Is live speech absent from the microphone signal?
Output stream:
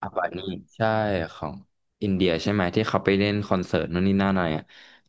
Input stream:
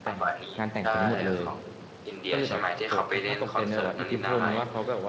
No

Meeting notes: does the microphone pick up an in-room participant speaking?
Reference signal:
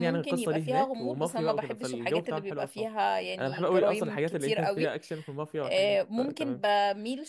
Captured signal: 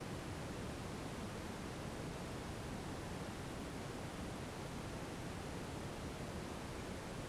No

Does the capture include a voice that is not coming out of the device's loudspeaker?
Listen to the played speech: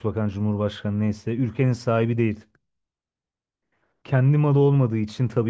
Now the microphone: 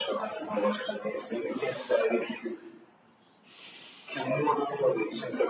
No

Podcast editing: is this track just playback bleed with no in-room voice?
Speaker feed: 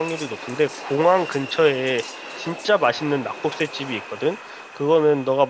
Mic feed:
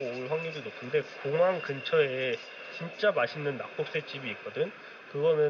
Yes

